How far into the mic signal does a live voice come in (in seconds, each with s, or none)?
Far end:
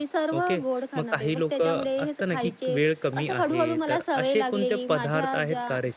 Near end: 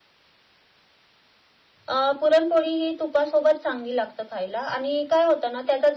1.9 s